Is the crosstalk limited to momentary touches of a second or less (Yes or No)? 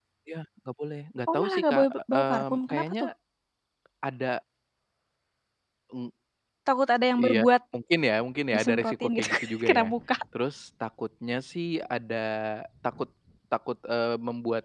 No